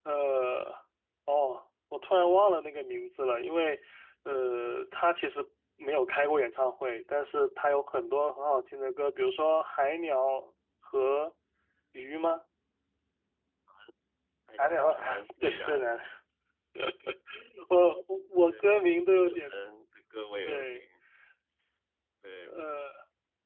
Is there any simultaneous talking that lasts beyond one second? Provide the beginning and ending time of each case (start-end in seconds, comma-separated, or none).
14.6-15.8